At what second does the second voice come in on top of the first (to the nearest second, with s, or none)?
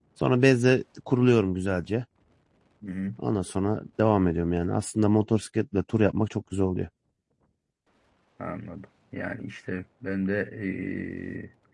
none